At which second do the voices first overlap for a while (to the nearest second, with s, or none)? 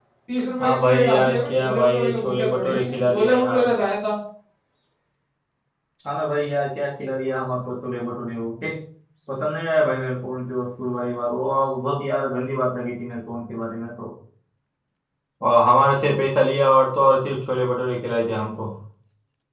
1 s